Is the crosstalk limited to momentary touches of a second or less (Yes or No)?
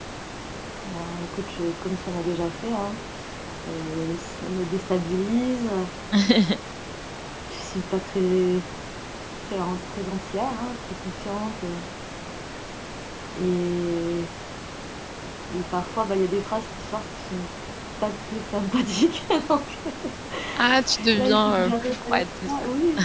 No